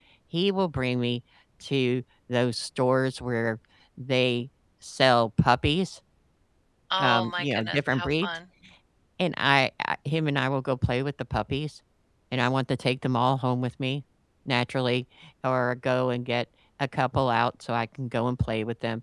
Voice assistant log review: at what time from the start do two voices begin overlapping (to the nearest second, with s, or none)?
7 s